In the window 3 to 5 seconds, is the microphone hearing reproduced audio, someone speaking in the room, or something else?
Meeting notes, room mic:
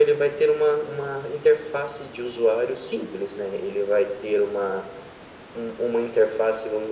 echo only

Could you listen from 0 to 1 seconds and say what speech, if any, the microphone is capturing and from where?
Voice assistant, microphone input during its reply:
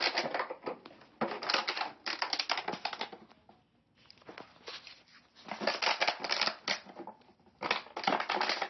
neither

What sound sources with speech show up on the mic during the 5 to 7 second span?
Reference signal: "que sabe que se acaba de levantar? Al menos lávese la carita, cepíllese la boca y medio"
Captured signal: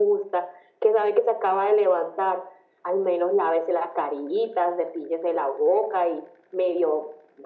echo only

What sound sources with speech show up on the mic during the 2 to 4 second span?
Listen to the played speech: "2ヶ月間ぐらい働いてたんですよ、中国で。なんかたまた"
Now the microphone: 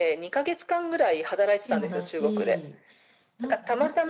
both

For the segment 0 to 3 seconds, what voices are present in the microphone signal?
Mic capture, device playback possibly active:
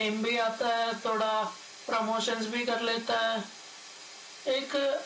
echo only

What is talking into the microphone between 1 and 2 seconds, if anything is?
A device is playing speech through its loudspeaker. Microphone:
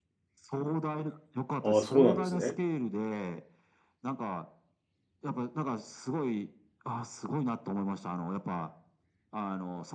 both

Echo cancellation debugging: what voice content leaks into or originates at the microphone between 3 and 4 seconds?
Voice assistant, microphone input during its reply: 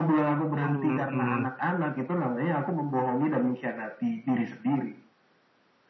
echo only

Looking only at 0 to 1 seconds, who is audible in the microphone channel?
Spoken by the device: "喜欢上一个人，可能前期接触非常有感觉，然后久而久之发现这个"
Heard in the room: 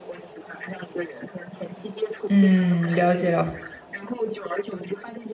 echo only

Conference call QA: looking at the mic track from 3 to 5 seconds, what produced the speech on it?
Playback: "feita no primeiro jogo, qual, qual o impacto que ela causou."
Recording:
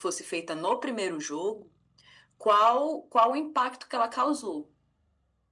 echo only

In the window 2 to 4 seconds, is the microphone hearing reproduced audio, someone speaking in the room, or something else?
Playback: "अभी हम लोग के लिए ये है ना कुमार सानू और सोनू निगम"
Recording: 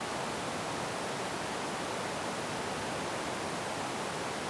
neither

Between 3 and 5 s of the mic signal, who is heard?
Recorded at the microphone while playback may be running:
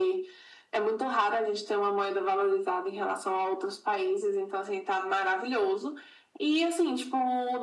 echo only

